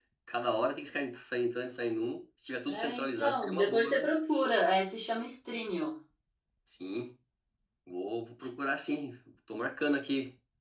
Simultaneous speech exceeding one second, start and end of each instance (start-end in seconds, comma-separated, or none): 2.7-4.1